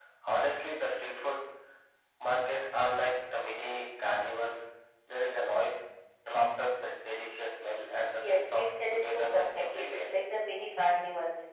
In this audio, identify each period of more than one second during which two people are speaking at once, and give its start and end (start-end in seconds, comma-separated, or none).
8.1-9.9